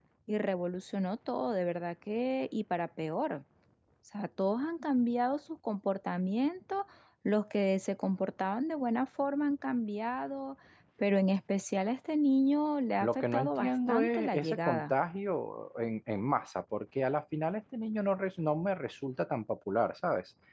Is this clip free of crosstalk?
No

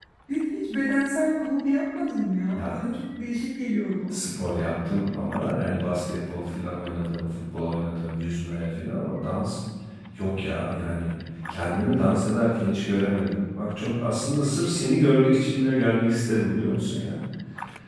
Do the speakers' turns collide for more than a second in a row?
No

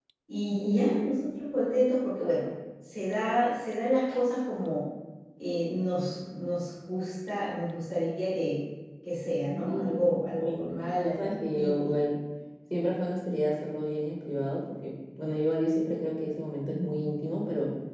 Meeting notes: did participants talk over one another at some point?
Yes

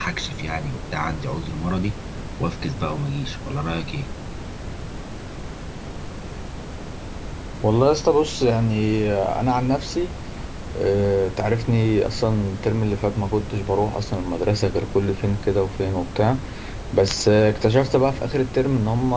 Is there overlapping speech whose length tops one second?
No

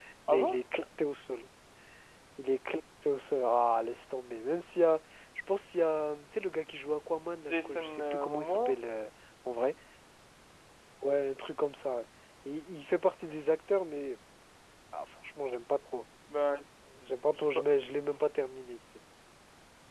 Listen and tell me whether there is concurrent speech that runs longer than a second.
Yes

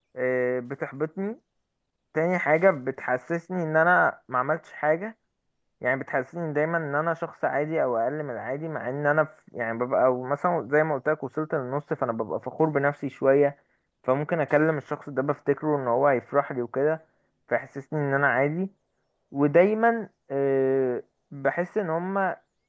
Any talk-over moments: No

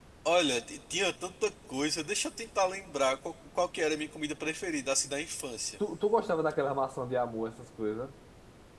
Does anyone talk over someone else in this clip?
No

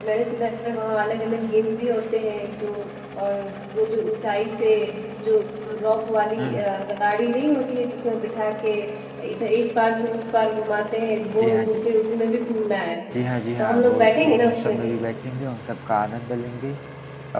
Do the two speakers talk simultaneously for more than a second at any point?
Yes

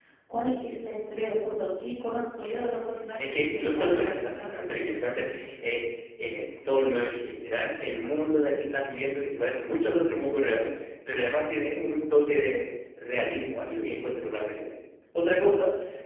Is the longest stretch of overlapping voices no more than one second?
No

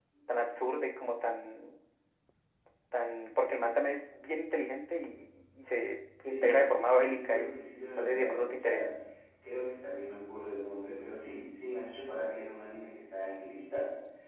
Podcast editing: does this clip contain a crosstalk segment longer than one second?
Yes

